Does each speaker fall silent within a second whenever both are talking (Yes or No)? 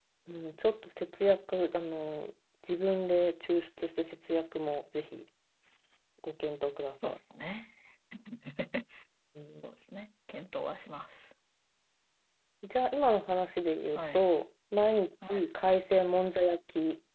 Yes